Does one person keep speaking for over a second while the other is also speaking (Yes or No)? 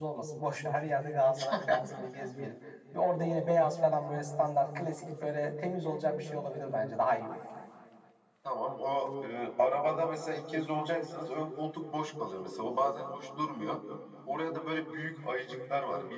No